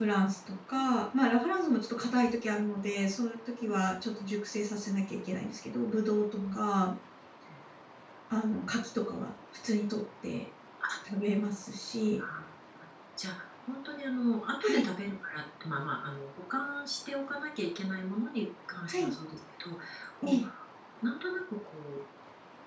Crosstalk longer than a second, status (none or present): none